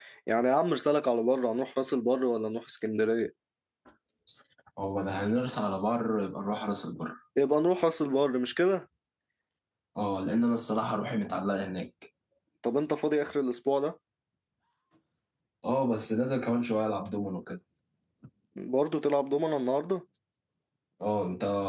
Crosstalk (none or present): none